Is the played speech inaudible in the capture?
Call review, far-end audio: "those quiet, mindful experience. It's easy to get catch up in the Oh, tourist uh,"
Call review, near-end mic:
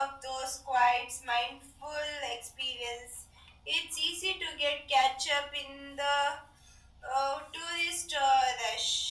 No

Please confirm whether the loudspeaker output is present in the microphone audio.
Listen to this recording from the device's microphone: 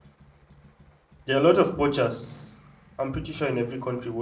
No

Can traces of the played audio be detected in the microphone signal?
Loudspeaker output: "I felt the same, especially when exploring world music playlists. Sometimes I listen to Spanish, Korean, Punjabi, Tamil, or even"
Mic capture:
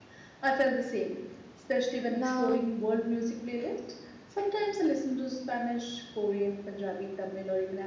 Yes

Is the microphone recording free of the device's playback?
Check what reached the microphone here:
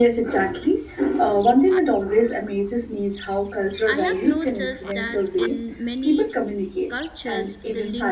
No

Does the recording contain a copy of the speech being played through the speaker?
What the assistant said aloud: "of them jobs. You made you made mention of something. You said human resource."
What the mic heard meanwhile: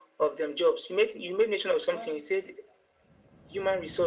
Yes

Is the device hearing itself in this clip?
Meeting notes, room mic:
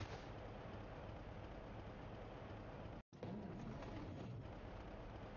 No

